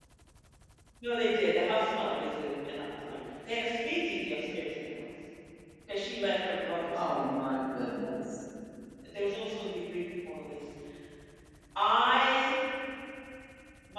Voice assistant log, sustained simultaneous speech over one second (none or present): none